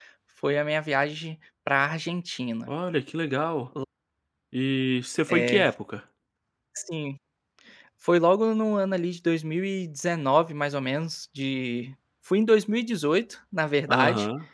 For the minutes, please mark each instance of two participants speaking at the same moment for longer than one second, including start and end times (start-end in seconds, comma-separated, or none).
none